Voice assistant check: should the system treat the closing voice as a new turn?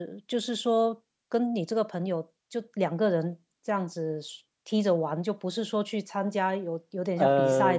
No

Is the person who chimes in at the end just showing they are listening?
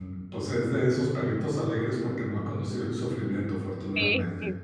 No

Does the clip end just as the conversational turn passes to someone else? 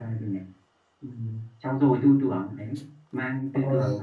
No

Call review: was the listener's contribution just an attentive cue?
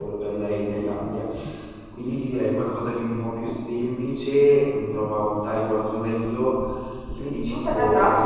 No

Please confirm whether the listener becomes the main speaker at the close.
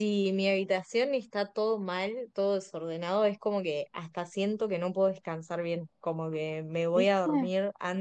No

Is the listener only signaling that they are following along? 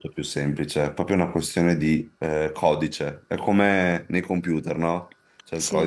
Yes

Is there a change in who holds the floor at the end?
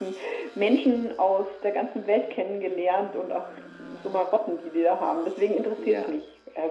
Yes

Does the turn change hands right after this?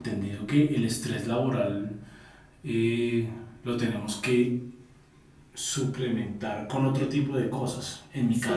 No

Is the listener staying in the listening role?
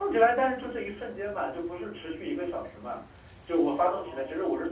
Yes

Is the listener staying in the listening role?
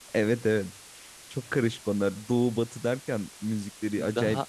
No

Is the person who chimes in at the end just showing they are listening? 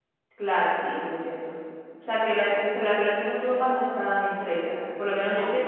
Yes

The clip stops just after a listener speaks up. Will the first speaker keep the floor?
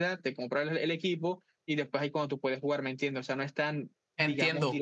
No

